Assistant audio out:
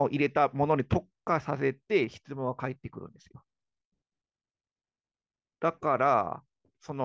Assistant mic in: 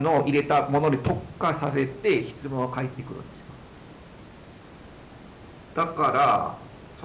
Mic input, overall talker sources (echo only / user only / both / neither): echo only